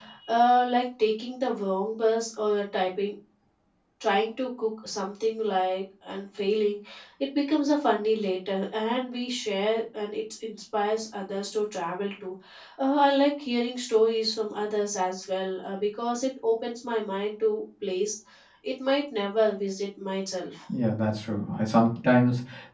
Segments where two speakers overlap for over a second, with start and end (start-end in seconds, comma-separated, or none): none